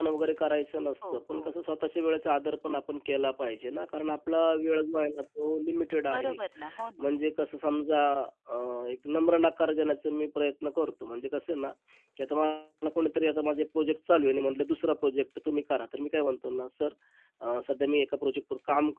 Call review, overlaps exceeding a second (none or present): none